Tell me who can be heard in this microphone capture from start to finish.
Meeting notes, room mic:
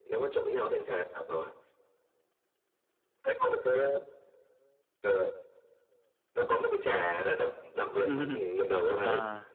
both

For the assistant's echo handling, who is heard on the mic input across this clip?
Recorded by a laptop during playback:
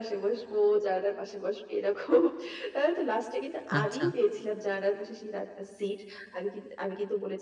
both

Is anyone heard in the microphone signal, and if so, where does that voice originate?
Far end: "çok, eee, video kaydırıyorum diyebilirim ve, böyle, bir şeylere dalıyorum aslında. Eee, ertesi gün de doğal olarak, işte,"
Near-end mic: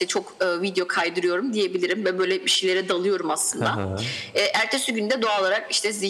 both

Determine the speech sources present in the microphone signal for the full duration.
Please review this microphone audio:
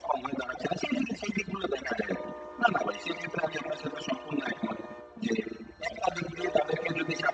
echo only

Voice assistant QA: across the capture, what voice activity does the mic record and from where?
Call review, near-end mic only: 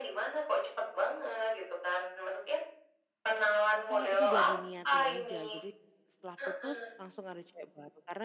both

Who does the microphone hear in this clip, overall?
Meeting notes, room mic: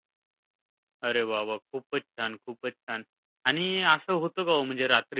user only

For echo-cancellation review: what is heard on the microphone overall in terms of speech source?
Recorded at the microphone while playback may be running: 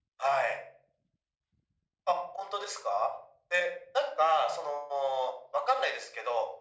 echo only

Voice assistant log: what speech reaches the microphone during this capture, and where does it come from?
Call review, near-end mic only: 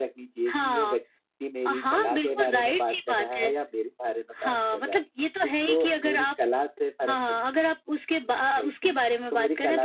echo only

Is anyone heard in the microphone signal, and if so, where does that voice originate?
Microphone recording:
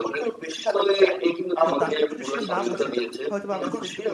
both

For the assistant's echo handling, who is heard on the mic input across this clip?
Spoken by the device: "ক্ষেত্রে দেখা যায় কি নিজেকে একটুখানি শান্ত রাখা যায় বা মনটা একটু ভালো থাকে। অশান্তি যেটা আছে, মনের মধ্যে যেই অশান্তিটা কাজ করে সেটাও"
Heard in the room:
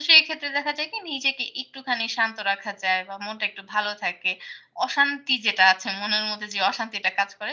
echo only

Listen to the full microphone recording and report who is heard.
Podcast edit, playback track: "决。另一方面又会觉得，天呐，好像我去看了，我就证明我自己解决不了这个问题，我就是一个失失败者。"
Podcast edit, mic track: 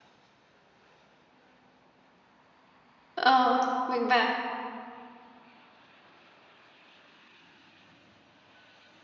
user only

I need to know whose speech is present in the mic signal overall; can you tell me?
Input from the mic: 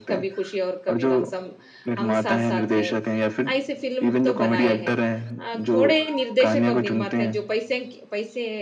both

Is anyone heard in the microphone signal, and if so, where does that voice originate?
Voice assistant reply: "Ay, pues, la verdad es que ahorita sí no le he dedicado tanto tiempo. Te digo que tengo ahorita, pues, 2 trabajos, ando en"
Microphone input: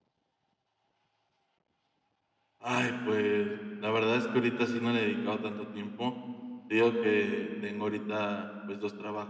echo only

